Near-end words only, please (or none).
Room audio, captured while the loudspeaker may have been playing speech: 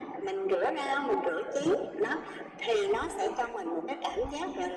none